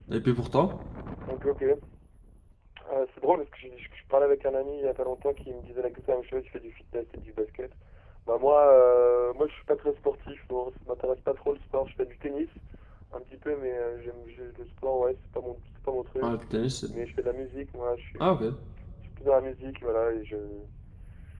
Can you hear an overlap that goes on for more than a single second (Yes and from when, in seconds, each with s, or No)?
No